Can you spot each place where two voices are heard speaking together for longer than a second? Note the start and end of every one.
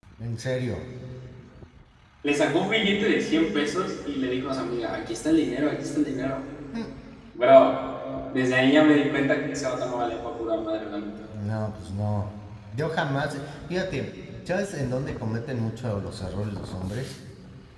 none

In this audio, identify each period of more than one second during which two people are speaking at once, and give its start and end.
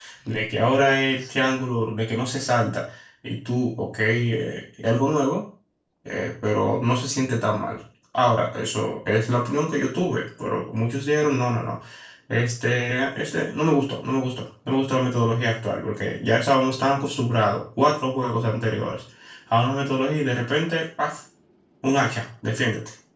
none

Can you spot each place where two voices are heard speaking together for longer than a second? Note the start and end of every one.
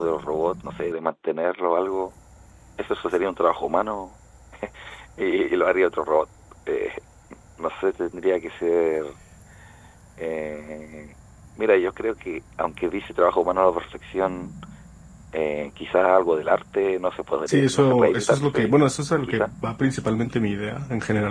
17.5-18.7

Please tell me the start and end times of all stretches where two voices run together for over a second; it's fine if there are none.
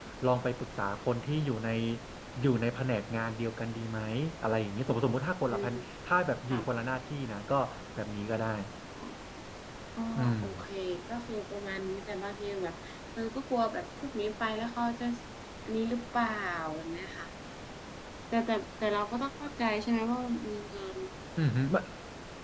none

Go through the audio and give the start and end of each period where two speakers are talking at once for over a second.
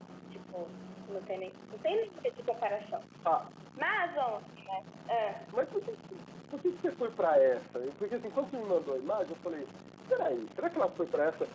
none

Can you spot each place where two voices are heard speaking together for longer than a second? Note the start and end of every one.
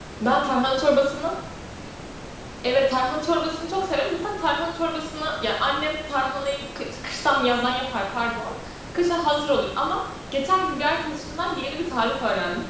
none

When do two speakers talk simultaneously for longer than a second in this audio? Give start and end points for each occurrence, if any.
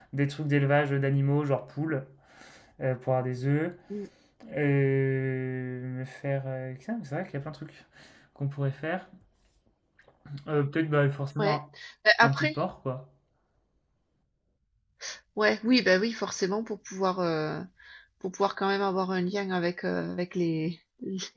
none

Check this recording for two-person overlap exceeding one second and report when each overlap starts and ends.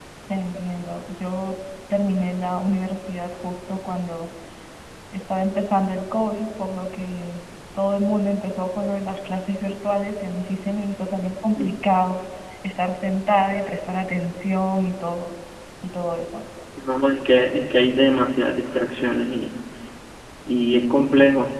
none

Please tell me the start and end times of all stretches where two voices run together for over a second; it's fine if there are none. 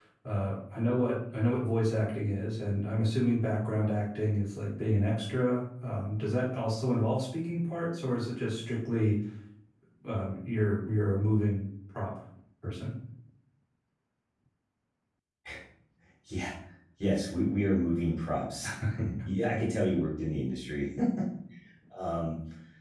none

